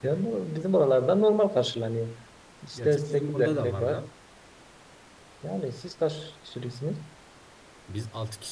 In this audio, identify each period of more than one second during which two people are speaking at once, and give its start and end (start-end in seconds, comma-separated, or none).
2.7-4.0